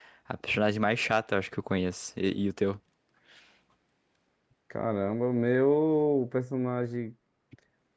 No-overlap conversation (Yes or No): Yes